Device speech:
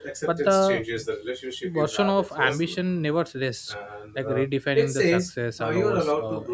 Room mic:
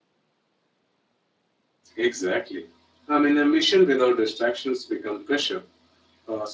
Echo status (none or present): none